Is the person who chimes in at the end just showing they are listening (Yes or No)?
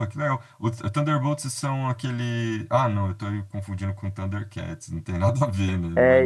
No